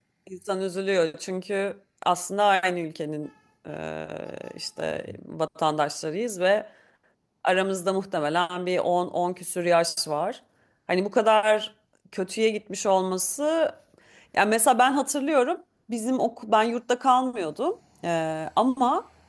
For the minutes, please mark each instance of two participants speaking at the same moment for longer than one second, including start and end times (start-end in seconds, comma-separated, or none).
none